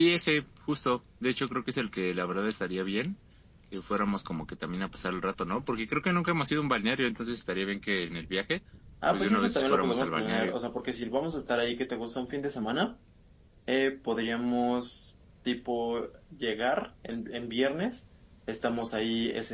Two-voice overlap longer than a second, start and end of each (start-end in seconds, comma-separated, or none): 9.1-10.6